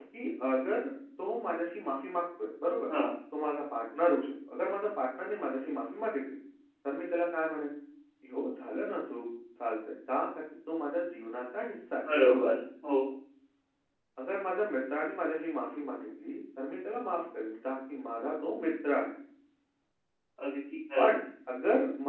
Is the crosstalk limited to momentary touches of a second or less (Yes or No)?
Yes